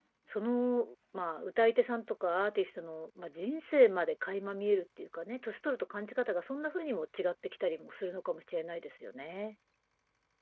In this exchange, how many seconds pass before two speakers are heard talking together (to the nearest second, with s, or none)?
none